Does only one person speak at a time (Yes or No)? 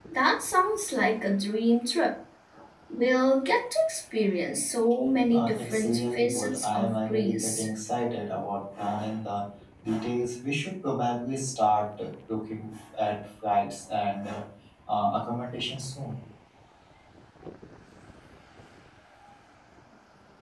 No